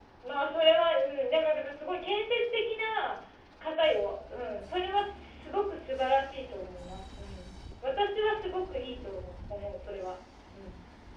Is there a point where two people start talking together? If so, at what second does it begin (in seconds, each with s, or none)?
none